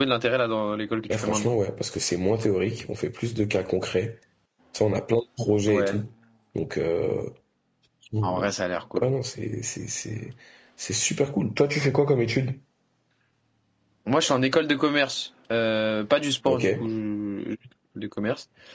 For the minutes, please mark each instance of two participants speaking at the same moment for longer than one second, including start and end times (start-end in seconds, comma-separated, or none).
none